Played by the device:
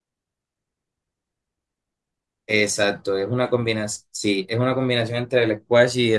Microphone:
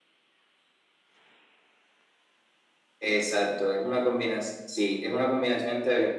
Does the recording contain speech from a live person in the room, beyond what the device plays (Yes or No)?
No